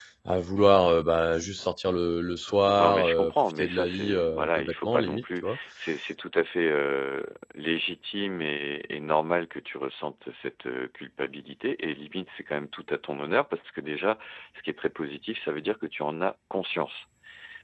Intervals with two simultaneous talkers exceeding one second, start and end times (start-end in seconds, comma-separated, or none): 2.8-5.6